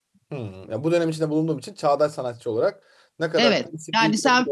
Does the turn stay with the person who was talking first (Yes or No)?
No